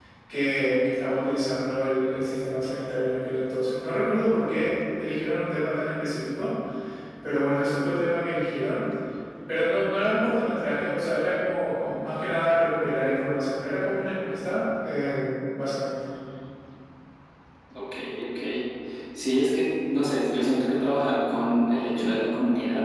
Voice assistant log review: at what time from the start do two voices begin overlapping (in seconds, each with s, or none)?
none